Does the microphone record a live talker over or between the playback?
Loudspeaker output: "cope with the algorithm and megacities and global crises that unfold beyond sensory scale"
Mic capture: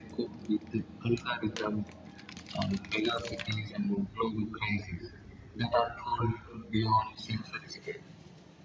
No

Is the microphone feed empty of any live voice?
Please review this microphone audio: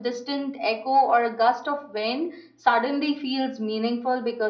Yes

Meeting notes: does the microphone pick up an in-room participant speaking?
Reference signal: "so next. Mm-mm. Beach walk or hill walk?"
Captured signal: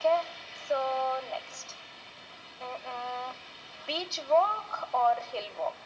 No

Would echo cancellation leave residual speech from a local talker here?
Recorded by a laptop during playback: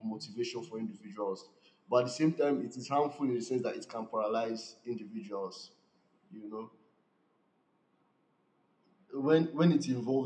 Yes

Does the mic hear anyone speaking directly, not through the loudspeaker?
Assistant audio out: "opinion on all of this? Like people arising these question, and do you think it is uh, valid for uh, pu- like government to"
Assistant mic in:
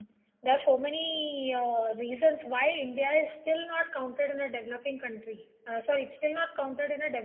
Yes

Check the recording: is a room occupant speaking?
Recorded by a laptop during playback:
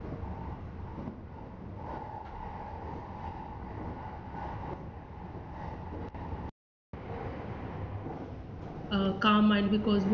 Yes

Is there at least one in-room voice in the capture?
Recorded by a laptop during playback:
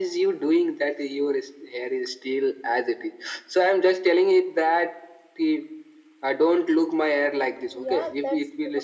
Yes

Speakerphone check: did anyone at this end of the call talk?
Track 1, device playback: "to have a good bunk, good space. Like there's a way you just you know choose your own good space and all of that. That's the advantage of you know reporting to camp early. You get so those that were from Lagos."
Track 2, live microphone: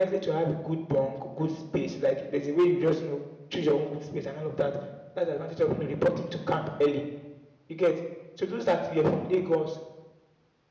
No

